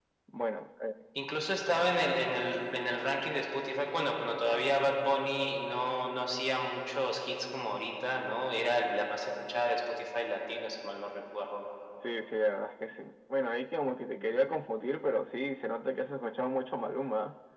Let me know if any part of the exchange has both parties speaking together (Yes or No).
No